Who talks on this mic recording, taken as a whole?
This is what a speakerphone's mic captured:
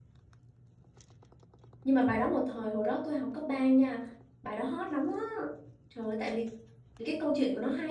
user only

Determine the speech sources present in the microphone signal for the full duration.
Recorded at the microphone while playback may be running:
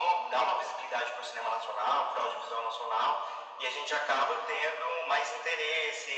echo only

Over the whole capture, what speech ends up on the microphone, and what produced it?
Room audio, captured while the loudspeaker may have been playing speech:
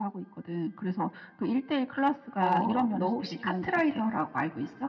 both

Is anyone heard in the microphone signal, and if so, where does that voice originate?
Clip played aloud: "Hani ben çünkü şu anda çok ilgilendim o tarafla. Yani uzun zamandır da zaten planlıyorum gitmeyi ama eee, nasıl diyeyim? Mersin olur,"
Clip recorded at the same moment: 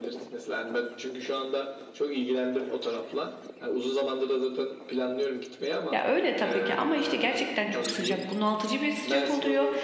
both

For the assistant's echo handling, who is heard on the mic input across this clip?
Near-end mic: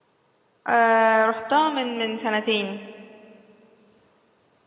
user only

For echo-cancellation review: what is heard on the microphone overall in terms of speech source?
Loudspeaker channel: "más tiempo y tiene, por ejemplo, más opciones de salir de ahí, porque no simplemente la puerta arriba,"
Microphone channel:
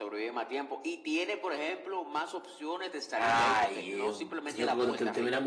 both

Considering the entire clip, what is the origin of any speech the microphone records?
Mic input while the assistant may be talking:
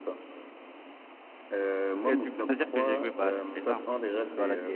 both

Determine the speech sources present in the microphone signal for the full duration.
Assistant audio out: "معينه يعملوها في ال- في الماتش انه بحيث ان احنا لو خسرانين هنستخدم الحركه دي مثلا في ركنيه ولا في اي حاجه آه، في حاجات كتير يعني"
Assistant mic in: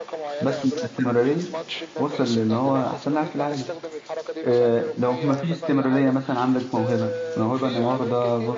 both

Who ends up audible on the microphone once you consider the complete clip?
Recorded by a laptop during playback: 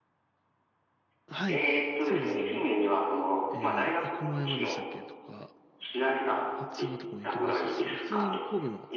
both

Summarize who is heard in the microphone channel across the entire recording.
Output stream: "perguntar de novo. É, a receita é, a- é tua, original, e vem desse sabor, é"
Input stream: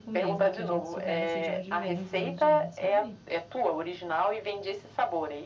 both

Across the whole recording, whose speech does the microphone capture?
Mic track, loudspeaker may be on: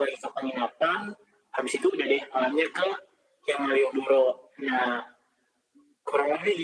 echo only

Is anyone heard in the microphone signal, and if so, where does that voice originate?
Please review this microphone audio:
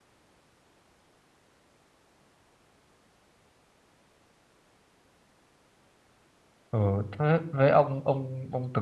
user only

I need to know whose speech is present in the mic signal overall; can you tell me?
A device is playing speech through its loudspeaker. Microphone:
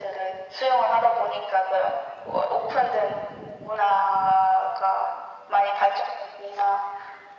echo only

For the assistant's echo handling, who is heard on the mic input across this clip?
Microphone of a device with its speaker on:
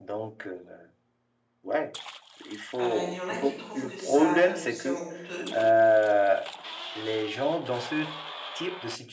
both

